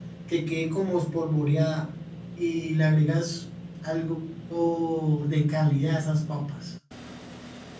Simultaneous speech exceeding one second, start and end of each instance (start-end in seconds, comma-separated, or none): none